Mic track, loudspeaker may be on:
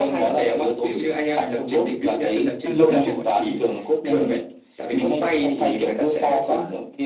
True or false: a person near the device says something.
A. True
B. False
A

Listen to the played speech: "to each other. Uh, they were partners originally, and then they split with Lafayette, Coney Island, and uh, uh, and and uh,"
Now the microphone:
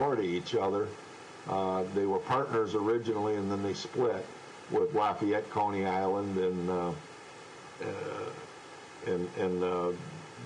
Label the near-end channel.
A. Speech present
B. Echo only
B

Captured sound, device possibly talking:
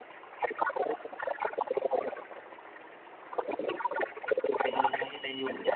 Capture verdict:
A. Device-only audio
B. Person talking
B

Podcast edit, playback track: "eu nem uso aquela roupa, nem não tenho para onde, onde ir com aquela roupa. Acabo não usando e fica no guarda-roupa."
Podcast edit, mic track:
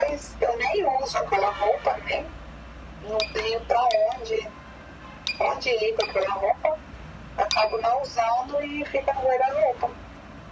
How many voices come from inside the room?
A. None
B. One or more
A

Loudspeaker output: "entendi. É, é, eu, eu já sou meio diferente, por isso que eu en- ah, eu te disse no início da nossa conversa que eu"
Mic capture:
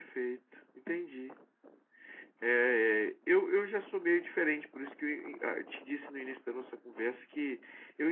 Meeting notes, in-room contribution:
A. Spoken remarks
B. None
B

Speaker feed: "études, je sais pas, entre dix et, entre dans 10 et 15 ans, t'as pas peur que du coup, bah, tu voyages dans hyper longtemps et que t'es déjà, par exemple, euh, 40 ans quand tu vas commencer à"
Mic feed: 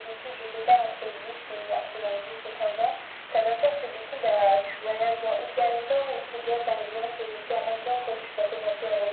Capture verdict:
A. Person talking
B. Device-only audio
B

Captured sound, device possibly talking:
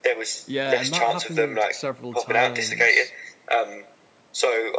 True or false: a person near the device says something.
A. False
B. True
B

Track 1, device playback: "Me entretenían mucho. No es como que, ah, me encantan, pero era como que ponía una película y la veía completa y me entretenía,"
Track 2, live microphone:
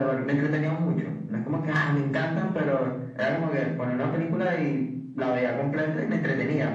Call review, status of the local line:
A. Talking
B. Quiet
B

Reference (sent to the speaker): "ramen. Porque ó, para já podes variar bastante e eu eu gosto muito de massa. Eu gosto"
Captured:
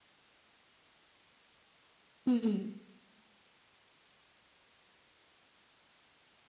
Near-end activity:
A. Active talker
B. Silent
A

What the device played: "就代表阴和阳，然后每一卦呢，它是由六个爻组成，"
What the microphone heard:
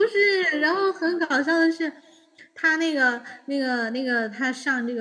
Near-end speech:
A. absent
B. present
B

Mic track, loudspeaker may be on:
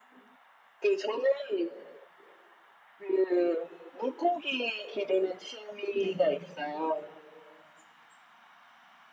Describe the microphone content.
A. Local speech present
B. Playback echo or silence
A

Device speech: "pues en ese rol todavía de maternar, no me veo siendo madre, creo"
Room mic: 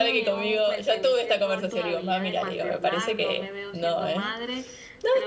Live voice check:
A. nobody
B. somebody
B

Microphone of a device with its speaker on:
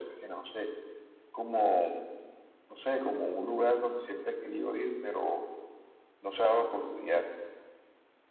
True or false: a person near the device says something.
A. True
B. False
B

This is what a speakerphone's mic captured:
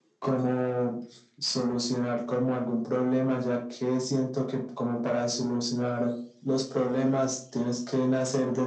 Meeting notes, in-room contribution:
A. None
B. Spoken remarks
A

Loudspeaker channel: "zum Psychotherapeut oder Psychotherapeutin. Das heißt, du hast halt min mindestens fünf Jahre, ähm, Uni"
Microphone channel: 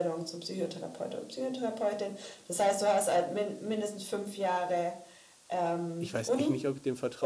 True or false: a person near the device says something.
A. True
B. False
A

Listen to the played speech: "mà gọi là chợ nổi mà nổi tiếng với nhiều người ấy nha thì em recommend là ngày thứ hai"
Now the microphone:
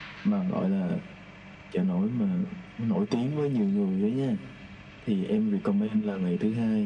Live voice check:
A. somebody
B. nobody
B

